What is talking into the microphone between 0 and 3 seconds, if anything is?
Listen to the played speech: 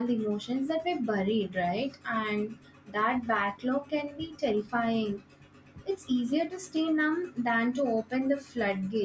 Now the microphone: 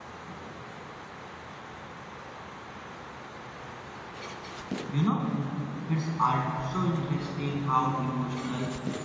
neither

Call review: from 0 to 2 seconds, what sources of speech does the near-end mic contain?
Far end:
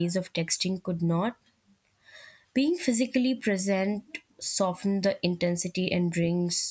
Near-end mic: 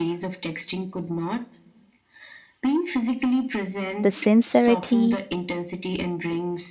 echo only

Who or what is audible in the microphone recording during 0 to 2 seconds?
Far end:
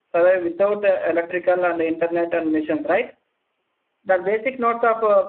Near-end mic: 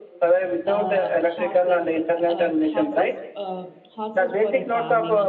both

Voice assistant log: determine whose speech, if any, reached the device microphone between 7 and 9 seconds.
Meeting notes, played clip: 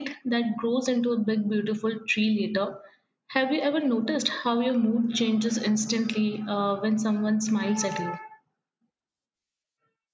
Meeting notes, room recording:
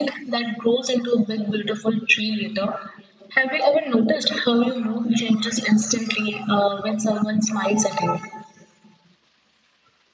echo only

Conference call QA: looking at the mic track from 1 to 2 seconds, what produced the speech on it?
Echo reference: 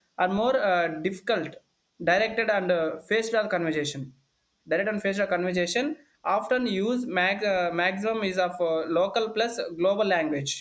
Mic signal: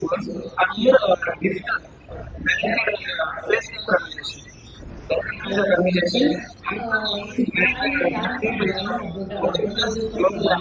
echo only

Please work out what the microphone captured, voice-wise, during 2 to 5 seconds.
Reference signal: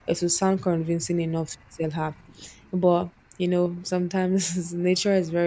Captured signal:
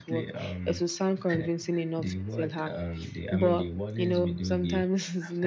both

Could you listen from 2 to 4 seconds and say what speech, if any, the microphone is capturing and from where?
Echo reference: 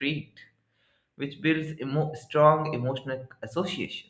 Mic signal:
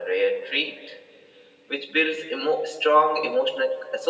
echo only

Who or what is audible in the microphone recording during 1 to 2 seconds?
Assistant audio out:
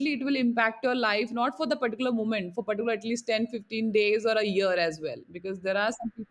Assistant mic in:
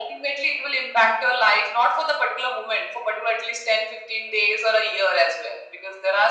echo only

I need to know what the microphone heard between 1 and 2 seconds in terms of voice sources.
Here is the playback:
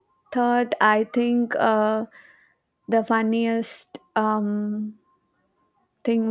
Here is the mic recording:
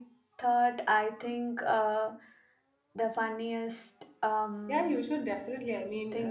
echo only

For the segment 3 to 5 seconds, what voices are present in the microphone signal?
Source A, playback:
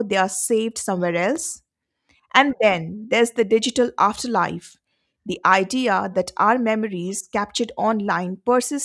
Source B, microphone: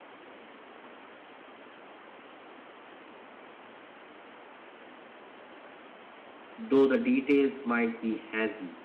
neither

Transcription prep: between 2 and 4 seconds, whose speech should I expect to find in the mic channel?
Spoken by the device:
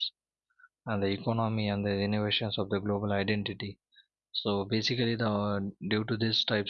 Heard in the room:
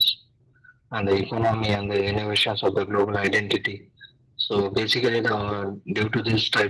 echo only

